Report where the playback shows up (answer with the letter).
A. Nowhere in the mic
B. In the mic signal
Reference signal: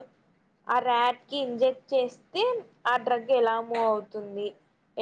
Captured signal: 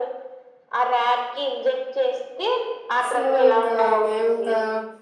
B